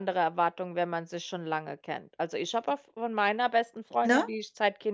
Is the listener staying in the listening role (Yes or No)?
Yes